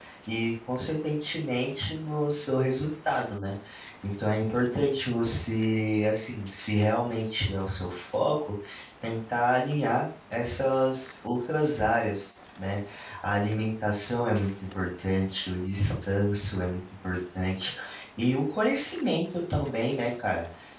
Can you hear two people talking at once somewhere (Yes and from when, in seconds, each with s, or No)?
No